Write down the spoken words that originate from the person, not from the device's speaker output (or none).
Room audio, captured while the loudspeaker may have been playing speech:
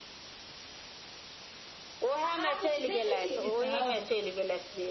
आ आब देखे छिये ई सब-